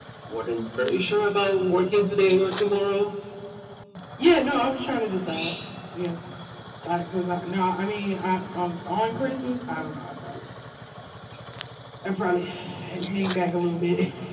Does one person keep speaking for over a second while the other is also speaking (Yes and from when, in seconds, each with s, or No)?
No